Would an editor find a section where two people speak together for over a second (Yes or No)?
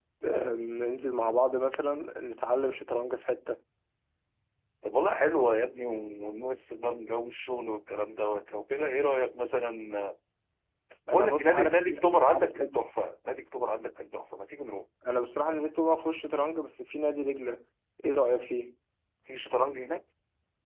Yes